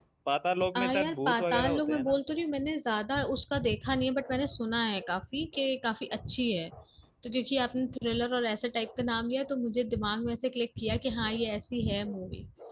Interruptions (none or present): present